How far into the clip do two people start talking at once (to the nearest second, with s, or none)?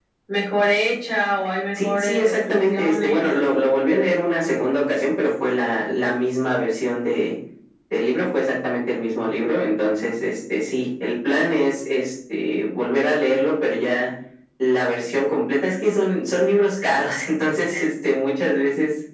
2 s